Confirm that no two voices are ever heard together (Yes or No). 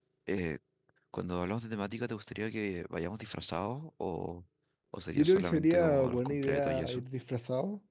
No